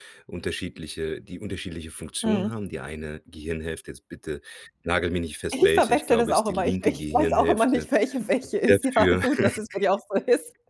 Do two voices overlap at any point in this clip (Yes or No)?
Yes